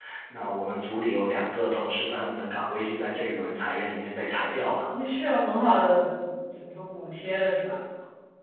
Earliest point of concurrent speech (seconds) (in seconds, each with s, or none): none